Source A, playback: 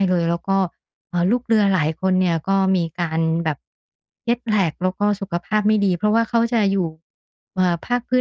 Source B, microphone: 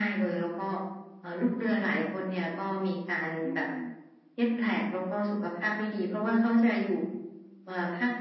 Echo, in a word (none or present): present